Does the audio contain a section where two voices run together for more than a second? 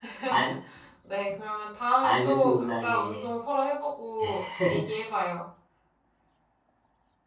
Yes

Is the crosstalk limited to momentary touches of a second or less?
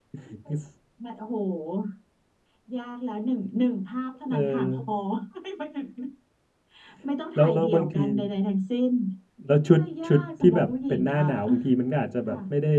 No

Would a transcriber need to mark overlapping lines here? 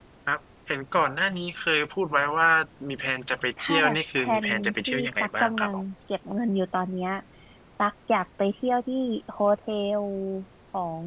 Yes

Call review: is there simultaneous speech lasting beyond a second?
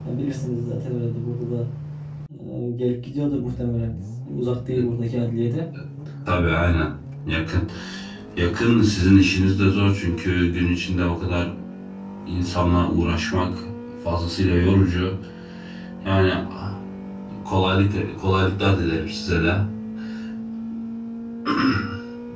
No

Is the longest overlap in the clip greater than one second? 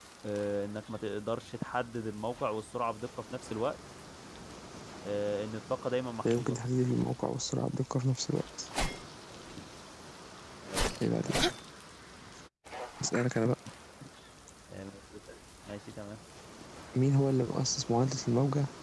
No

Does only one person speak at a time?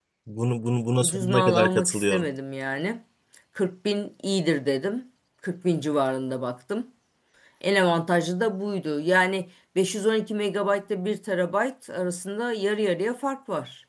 No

